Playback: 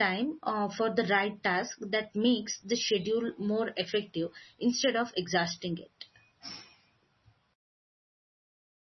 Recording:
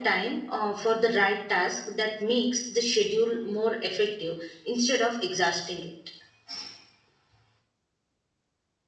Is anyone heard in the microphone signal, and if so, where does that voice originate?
echo only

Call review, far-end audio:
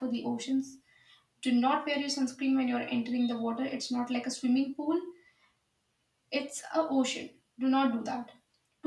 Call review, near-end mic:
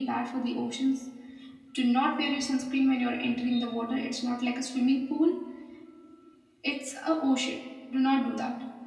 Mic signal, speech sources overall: echo only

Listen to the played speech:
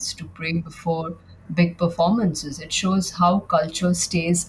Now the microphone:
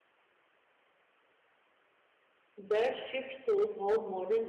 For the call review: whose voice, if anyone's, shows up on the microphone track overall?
user only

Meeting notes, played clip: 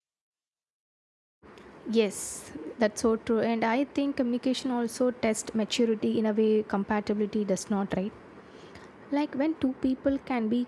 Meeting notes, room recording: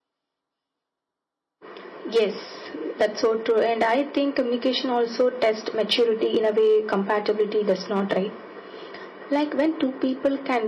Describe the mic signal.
echo only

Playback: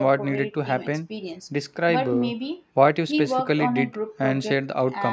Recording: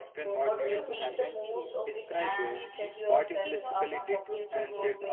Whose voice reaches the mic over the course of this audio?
both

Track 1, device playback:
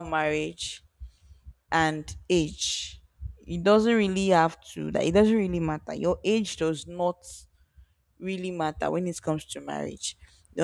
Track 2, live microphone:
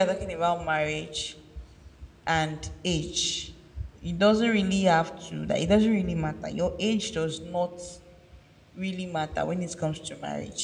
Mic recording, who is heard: echo only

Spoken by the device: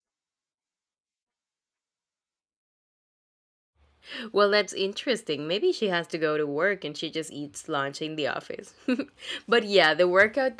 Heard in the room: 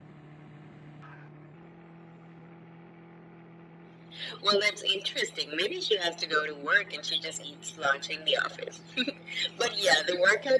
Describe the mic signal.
echo only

